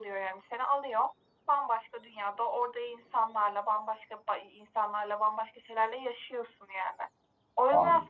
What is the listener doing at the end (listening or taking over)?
listening